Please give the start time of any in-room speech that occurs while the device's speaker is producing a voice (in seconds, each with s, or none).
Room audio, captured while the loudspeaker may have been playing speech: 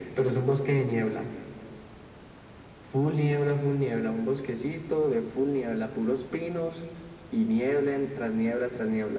none